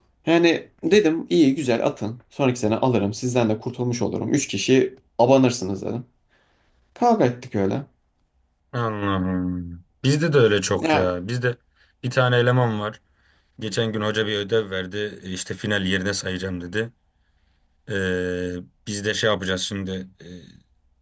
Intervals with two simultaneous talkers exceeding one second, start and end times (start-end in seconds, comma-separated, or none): none